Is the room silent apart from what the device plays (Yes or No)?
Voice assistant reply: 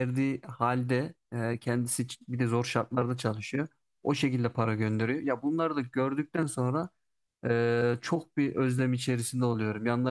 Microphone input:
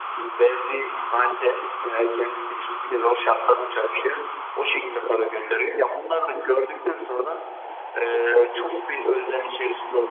Yes